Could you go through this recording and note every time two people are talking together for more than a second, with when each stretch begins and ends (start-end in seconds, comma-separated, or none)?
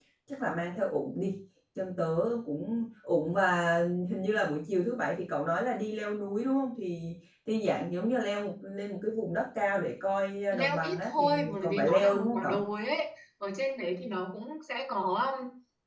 10.5-12.6